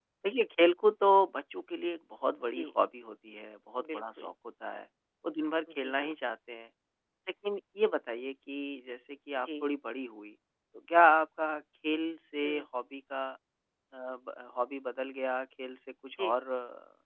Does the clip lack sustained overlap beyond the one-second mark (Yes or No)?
Yes